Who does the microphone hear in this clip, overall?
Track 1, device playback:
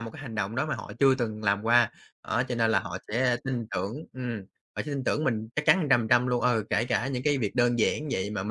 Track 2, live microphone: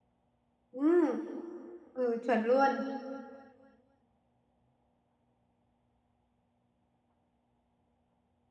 user only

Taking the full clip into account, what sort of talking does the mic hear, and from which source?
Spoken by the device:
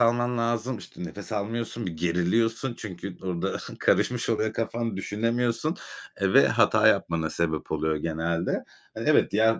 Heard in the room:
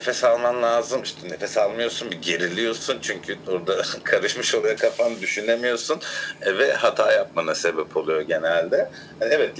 echo only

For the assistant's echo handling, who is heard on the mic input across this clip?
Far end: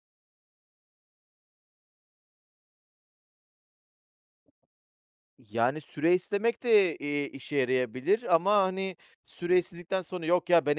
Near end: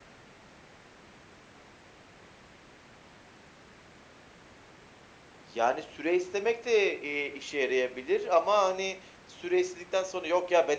echo only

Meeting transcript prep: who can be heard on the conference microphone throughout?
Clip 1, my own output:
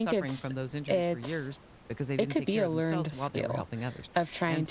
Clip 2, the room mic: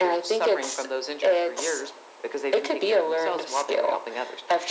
echo only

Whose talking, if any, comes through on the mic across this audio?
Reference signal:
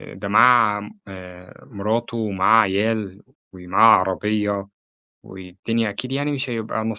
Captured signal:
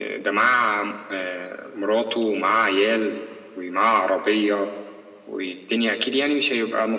echo only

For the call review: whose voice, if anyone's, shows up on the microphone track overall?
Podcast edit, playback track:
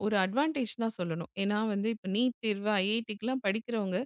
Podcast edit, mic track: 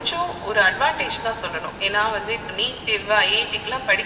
echo only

